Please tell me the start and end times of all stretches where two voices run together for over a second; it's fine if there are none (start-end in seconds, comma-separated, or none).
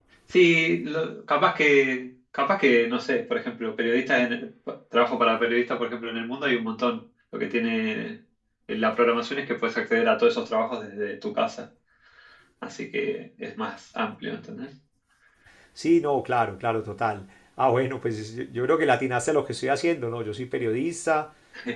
none